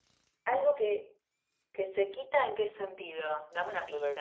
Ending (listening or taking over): taking over